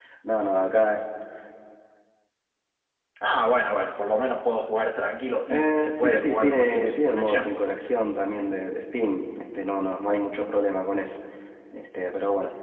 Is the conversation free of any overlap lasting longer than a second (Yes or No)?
No